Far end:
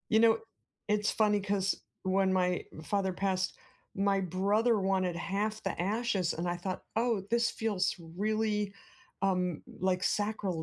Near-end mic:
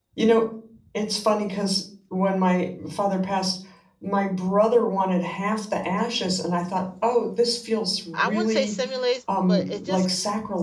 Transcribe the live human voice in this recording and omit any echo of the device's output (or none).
I wouldn't say simulates, but it just